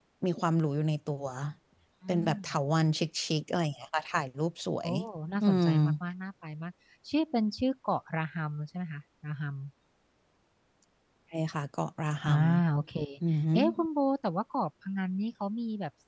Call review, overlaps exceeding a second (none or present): none